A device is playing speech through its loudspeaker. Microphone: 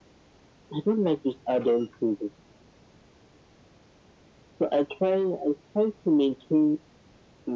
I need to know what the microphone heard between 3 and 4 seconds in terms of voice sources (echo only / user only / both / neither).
neither